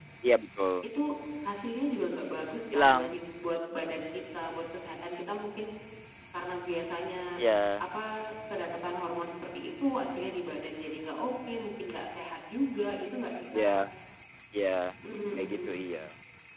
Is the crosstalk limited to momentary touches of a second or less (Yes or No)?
Yes